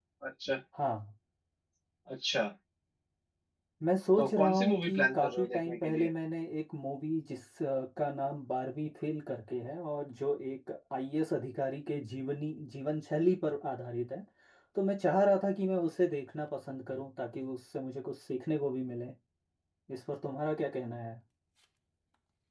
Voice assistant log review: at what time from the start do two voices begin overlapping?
4.2 s

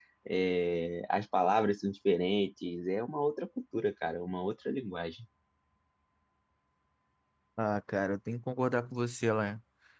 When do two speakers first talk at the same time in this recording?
none

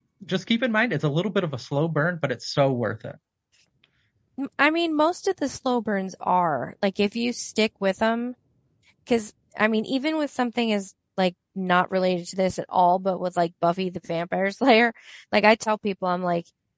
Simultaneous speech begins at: none

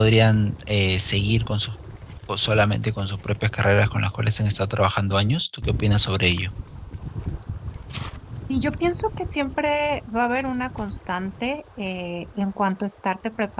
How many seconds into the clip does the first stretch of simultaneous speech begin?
none

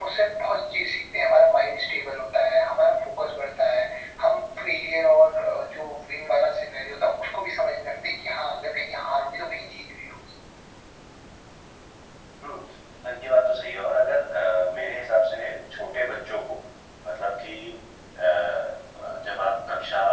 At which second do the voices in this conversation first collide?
none

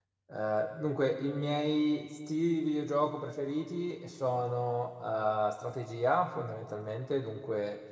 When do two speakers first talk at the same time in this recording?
none

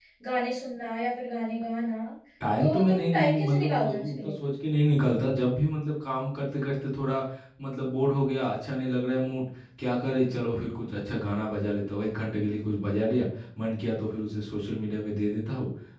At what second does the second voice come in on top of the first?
2.6 s

